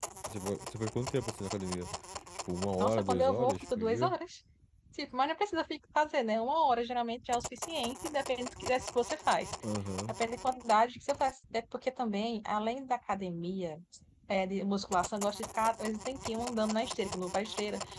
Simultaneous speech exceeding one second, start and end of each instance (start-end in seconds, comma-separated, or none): 2.8-4.2